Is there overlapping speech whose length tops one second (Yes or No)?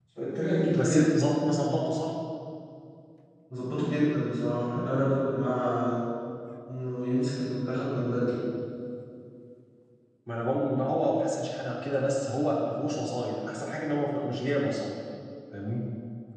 No